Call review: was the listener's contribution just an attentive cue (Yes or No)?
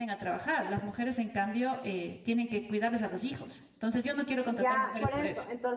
No